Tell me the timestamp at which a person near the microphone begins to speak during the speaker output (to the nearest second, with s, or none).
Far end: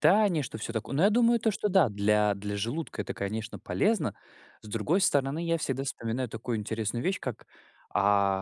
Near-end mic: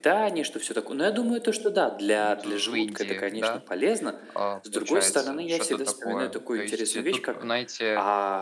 2 s